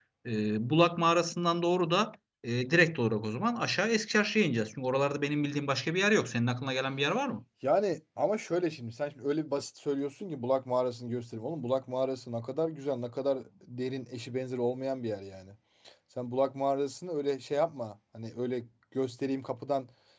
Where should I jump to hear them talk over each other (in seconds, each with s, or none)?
none